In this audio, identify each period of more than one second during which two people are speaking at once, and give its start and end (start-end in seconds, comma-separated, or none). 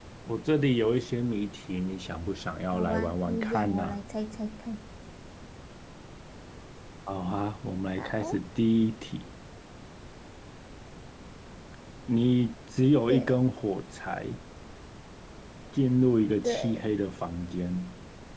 2.7-4.0